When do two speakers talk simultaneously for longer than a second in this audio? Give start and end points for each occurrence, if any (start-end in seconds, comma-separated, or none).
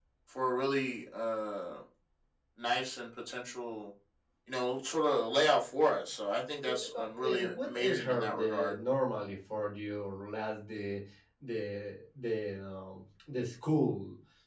6.7-8.7